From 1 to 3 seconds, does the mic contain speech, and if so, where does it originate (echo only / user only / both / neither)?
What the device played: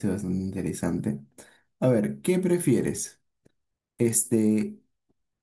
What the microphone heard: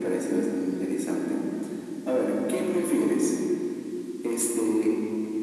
echo only